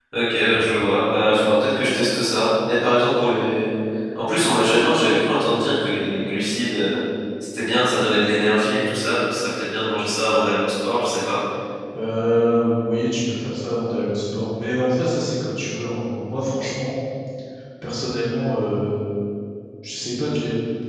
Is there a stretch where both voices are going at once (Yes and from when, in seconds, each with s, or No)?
No